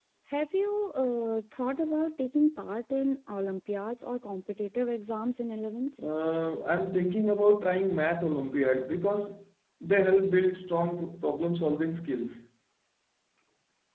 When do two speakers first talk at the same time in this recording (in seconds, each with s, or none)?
none